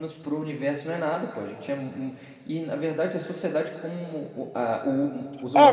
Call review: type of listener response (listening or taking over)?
taking over